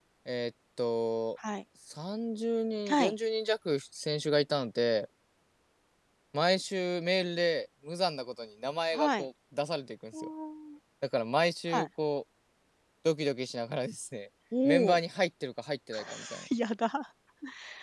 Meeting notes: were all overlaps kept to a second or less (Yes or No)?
Yes